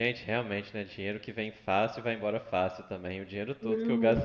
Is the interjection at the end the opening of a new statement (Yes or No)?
No